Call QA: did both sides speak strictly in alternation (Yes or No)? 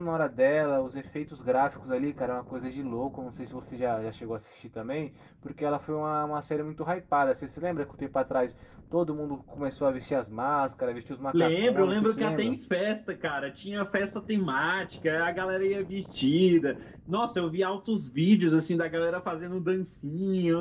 No